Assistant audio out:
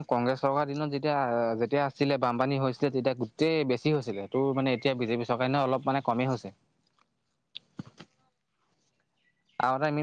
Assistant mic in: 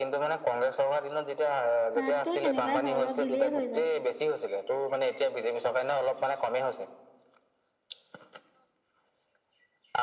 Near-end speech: present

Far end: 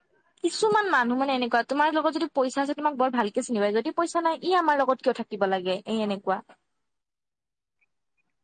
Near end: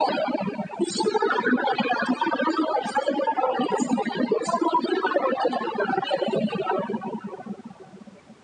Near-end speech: none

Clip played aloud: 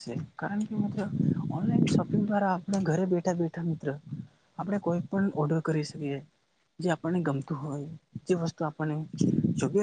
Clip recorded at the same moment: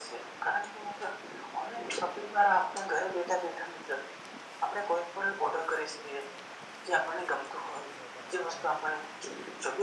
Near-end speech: none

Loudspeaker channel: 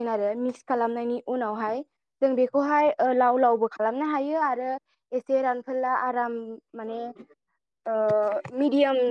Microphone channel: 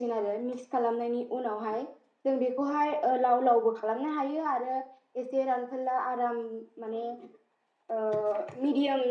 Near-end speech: none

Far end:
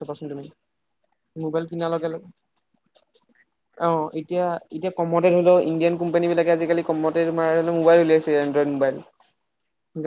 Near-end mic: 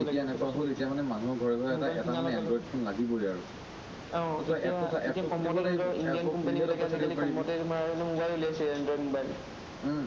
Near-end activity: present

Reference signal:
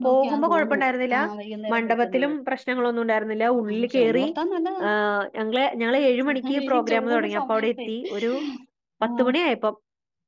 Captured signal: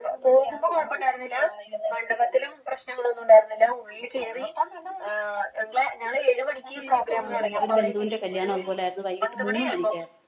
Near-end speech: present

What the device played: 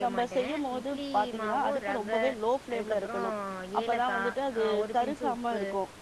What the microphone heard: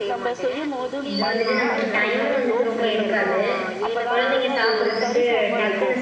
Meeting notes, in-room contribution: present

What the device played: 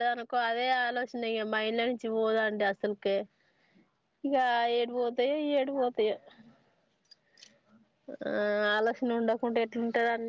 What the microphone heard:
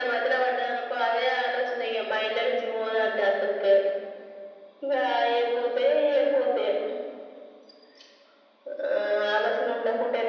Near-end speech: none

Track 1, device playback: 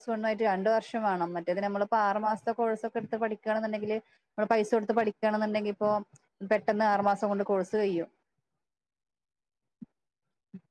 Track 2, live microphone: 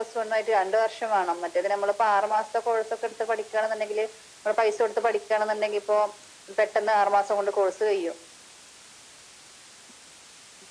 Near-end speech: none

